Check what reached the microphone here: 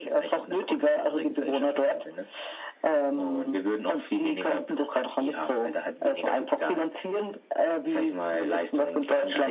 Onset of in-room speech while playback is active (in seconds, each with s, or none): none